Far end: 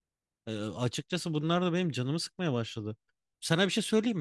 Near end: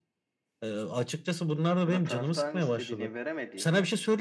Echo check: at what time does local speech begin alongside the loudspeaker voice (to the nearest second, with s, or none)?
2 s